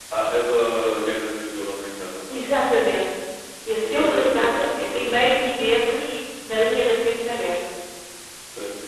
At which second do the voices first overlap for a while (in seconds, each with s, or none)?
3.8 s